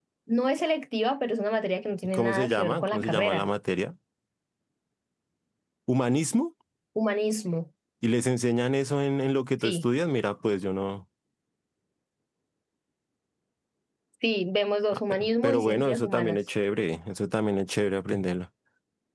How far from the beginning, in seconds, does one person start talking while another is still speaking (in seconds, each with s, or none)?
2.1 s